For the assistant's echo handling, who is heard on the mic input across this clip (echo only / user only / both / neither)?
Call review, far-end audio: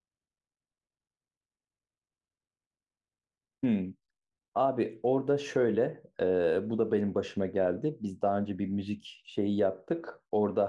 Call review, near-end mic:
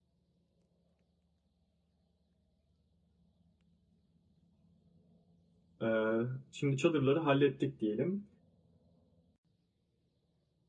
user only